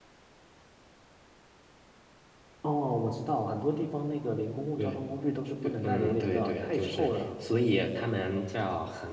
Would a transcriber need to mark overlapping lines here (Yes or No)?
Yes